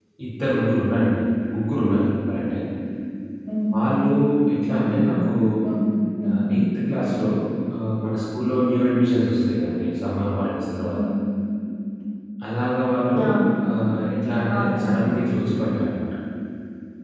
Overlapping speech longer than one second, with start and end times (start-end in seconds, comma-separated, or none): none